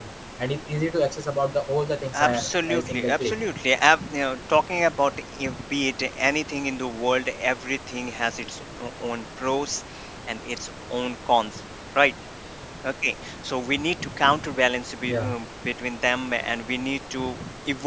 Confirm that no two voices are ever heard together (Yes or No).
No